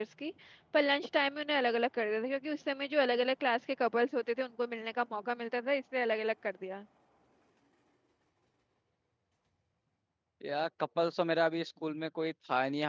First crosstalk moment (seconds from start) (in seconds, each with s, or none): none